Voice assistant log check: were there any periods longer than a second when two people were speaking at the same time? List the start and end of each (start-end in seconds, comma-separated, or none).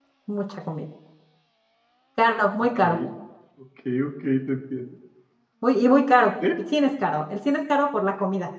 none